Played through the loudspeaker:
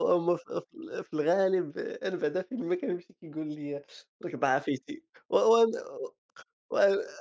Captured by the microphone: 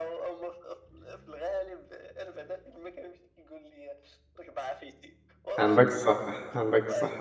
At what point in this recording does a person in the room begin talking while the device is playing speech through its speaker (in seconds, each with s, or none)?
5.6 s